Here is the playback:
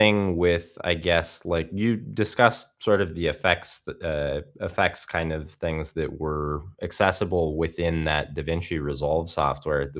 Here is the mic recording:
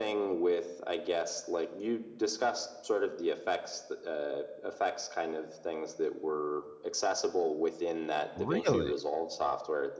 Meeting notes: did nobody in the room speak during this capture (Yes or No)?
No